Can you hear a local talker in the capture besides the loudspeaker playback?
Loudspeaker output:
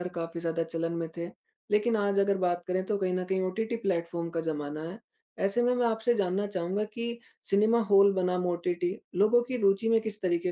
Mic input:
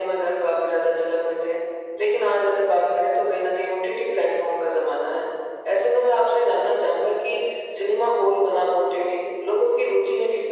No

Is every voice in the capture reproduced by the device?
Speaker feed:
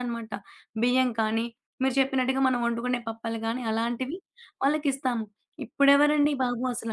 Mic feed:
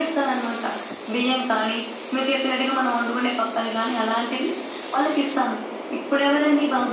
Yes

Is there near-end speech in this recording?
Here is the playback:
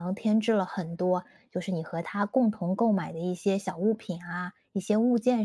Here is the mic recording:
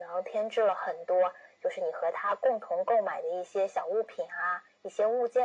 No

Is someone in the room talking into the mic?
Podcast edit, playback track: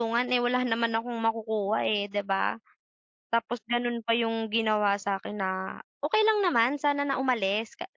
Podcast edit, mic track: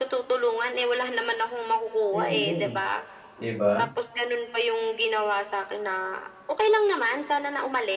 Yes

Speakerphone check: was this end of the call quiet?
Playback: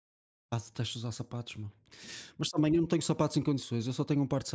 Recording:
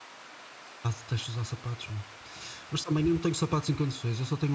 Yes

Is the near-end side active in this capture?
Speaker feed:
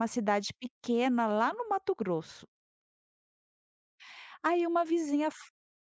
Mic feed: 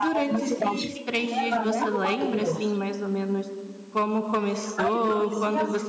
Yes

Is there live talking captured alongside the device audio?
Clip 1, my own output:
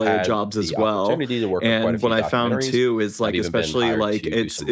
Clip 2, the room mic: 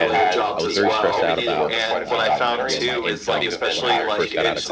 Yes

